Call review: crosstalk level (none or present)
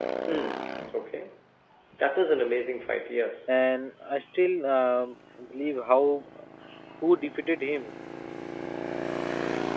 none